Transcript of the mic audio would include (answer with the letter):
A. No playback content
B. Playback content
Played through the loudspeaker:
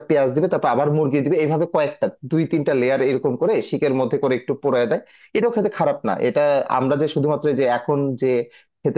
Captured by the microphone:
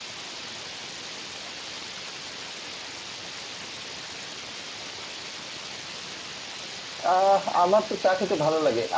A